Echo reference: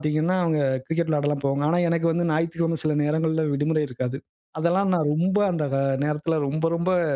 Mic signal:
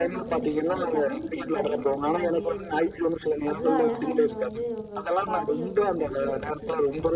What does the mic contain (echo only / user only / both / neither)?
both